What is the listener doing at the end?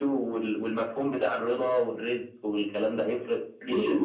taking over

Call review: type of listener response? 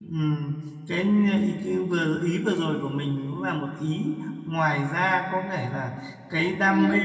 listening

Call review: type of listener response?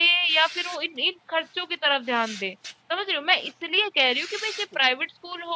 listening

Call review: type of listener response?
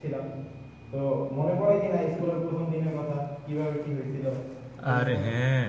taking over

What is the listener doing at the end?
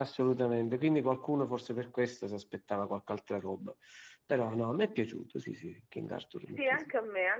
taking over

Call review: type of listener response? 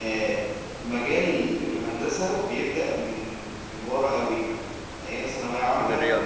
listening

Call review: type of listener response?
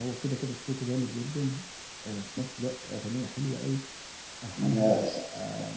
listening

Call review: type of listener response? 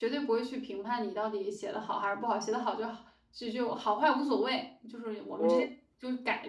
listening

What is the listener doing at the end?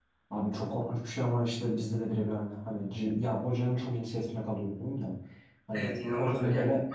taking over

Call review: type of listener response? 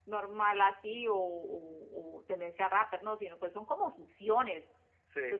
listening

